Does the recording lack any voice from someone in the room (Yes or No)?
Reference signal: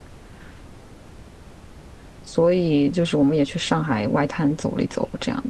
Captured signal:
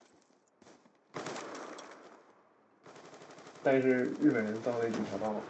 No